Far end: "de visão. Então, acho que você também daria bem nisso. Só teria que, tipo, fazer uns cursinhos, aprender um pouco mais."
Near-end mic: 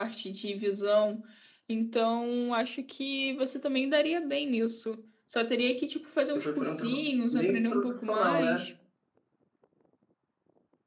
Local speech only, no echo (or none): você foi fazer um trabalho meio que profissional, né?